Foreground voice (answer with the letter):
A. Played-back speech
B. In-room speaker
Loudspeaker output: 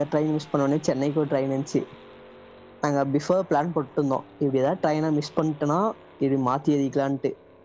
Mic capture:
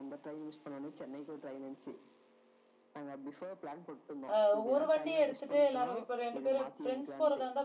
B